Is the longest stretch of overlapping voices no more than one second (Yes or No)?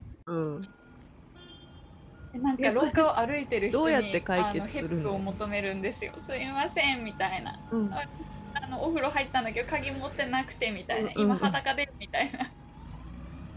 No